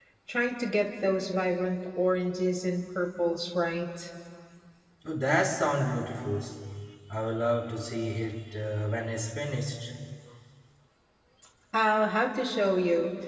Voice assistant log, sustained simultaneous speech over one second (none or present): none